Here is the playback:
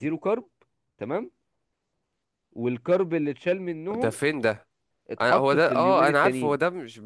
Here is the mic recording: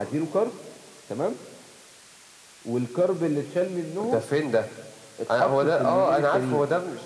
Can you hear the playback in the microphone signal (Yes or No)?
Yes